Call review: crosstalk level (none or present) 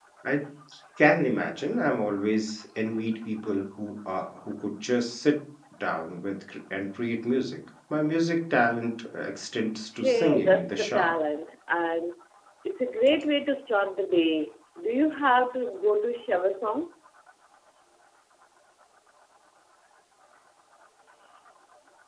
present